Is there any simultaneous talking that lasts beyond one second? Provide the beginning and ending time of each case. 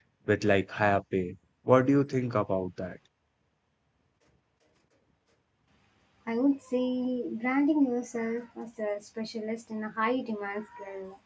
none

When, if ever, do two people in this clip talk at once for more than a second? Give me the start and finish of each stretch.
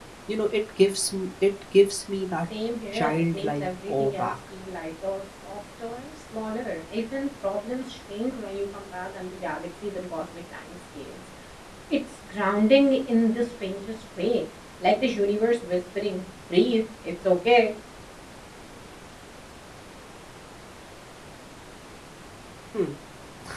2.9-4.3

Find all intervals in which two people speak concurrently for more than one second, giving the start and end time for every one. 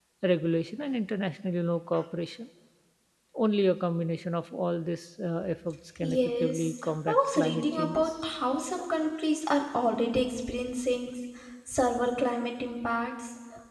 6.0-8.3

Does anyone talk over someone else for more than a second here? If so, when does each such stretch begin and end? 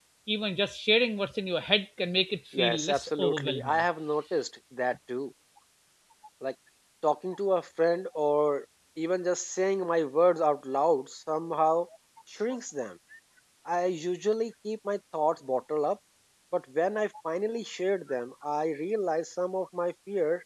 2.6-3.8

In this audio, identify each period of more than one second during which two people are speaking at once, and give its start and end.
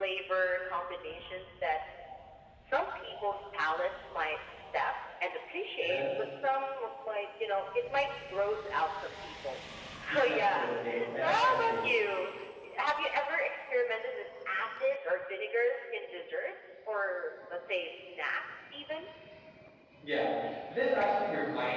10.1-11.9

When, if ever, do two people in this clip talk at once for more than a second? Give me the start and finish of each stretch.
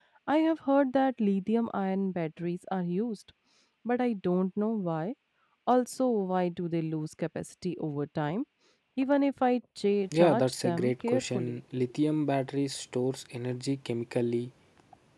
10.2-11.6

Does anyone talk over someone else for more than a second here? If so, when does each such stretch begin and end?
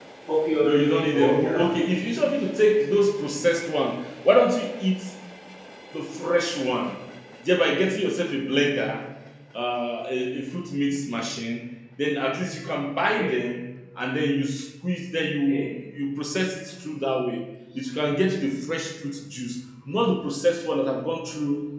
0.6-1.8

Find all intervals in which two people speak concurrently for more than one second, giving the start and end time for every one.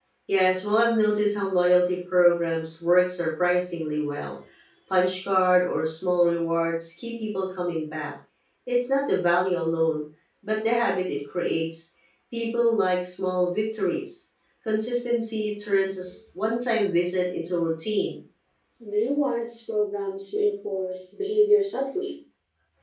none

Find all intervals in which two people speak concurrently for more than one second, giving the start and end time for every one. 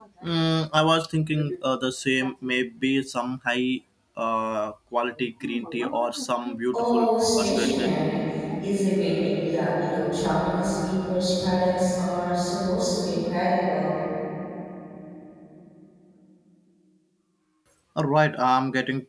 6.7-8.0

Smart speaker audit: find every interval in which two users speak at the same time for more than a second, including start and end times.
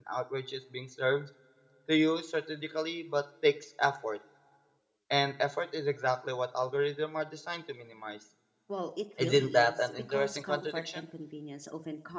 9.2-11.0

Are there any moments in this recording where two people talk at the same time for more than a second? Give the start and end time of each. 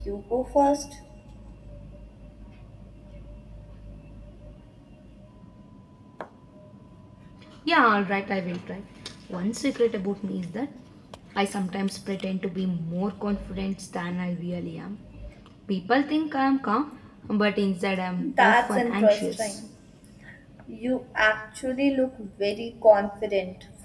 18.2-19.6

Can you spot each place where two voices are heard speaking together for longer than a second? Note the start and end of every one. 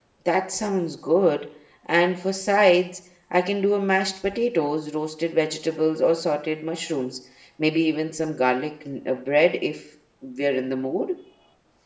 none

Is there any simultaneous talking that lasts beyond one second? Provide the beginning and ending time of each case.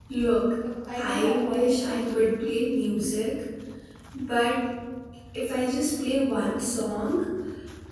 1.0-2.3

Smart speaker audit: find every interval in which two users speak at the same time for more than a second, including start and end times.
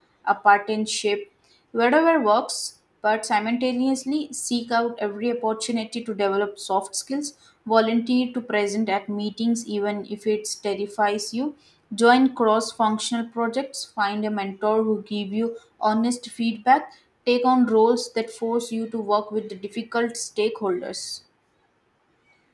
none

